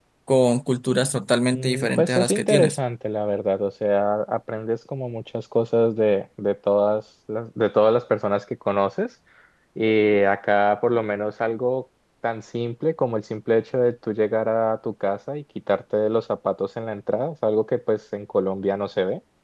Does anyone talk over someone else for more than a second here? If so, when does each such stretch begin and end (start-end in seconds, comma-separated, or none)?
1.5-2.8